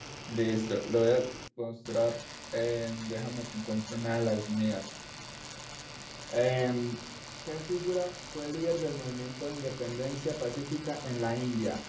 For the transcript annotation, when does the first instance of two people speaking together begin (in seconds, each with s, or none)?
none